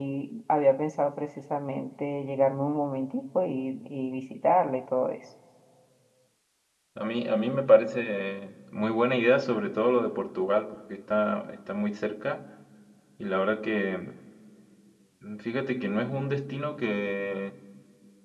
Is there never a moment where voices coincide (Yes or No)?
Yes